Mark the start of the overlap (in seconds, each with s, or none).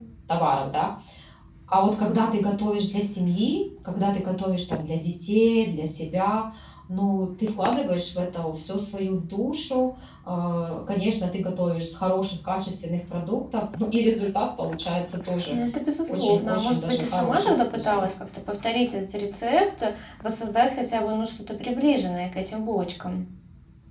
16.1 s